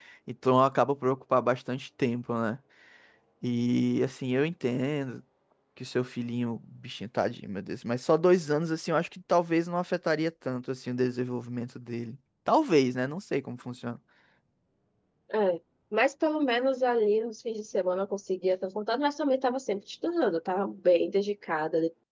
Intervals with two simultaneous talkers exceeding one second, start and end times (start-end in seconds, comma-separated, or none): none